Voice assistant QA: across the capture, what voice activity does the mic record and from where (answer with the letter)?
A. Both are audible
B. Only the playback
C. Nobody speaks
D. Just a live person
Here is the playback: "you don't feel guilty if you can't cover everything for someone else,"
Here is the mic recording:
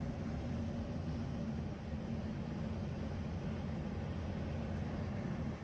C